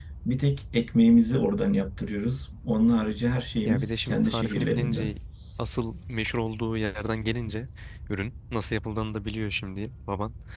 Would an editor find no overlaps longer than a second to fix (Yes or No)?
No